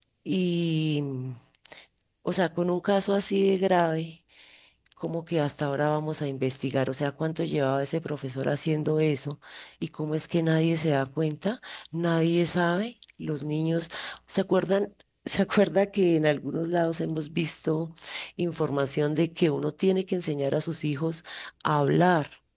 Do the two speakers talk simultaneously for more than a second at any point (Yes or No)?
No